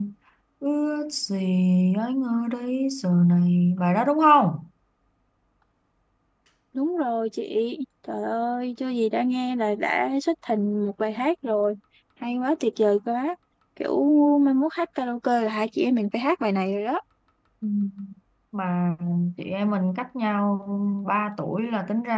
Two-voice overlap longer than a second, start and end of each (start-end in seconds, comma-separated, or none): none